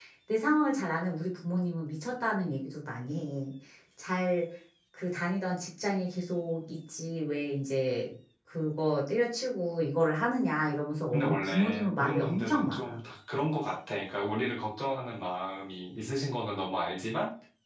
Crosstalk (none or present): present